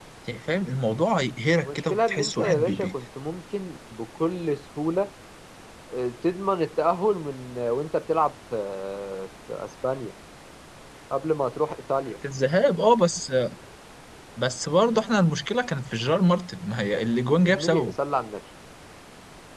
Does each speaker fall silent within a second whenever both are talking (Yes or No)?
No